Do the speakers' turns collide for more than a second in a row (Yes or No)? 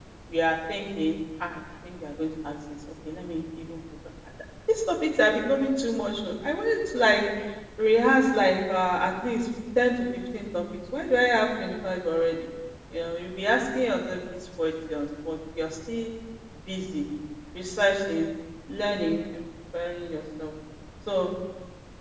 No